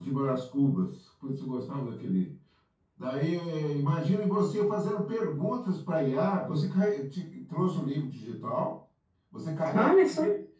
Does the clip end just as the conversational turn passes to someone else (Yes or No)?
No